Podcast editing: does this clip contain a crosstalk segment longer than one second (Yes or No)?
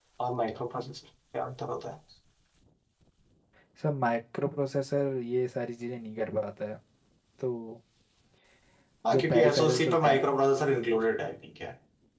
Yes